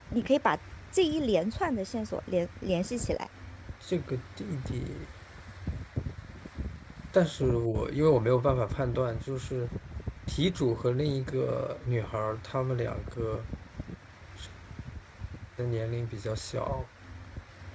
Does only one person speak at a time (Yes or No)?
Yes